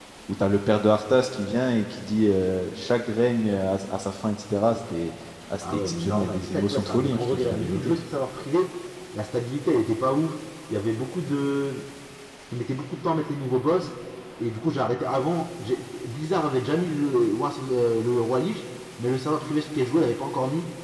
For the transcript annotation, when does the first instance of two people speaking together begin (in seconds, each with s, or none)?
5.6 s